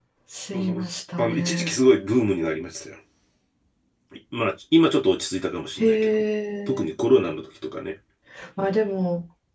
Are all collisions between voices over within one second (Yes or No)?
No